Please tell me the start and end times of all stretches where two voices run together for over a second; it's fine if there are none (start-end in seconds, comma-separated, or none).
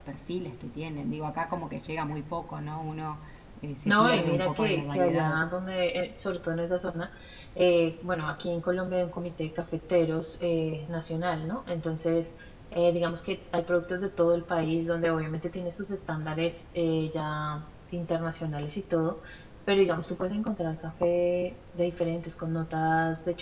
3.9-5.4